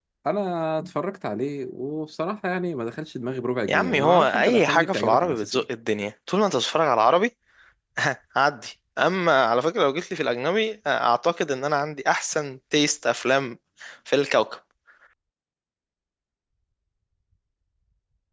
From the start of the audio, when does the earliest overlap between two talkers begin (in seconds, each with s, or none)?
3.7 s